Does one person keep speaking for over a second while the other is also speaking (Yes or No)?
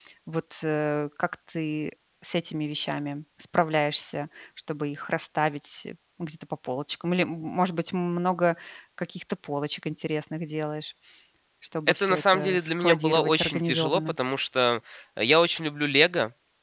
Yes